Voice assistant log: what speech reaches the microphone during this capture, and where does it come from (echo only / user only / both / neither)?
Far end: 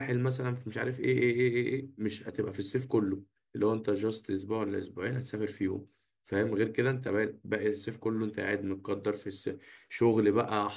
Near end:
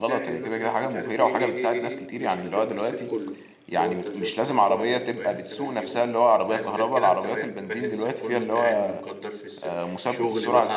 both